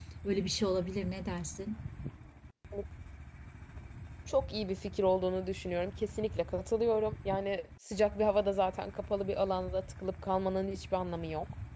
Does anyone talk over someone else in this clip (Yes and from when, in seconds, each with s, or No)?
No